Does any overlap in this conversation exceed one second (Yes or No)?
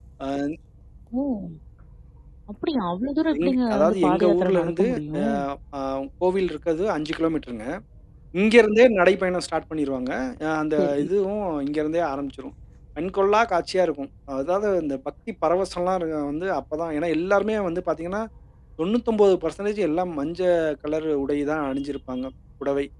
Yes